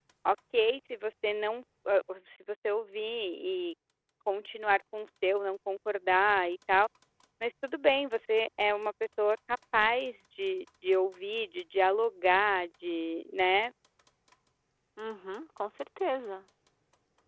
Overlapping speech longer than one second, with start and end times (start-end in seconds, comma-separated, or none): none